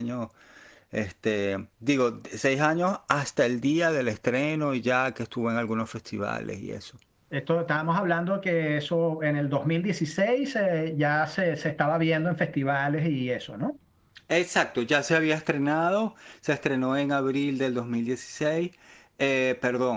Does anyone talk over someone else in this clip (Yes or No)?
No